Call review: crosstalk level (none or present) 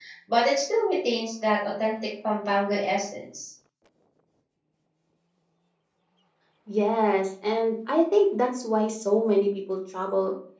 none